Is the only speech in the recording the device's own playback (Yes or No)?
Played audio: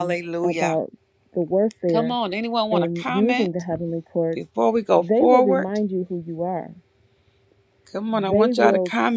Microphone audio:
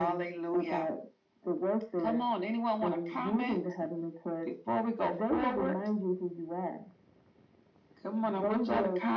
Yes